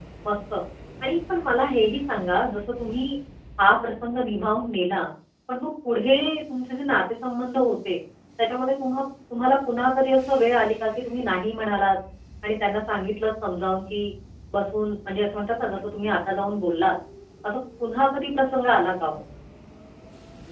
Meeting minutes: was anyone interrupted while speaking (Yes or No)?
No